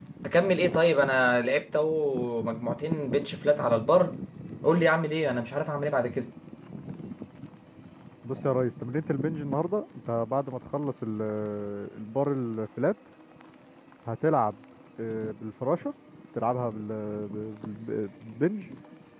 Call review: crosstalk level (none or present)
none